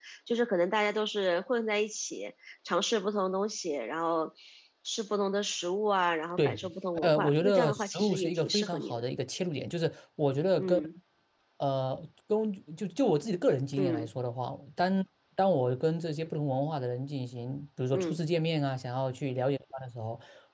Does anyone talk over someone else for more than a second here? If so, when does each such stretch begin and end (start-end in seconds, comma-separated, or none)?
7.0-9.0